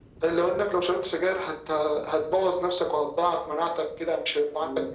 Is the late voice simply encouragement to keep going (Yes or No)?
Yes